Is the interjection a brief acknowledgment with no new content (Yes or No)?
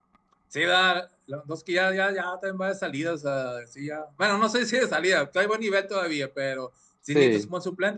Yes